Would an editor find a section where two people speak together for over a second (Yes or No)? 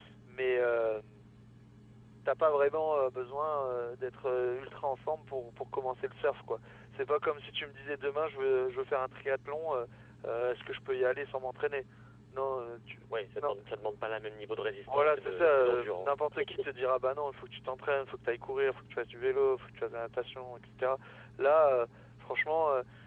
Yes